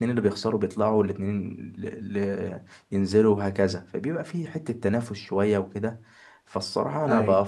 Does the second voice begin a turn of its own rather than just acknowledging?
No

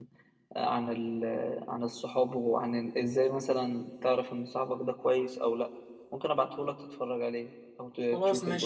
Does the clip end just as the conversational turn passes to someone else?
Yes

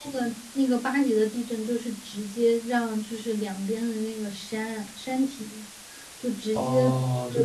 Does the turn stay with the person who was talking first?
No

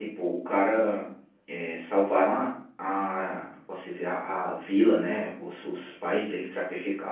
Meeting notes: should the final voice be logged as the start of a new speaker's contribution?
No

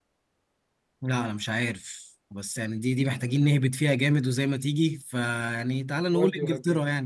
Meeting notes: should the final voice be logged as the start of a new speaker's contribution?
No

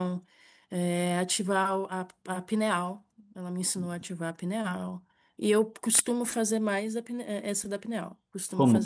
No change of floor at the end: No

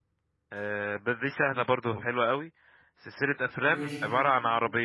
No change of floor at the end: Yes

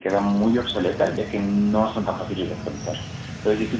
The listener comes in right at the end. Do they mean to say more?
No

